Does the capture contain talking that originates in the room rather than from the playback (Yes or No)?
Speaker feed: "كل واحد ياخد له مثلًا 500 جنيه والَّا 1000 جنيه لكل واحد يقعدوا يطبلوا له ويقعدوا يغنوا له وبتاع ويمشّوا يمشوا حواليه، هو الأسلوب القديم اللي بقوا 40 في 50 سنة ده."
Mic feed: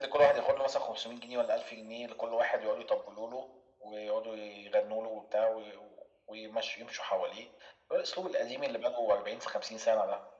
No